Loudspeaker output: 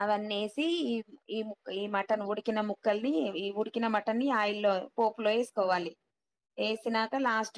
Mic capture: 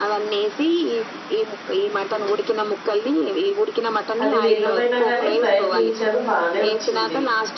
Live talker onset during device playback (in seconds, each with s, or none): 4.2 s